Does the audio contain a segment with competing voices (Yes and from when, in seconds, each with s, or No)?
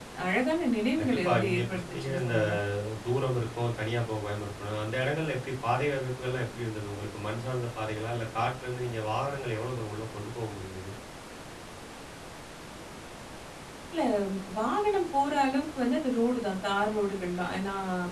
Yes, from 1.0 s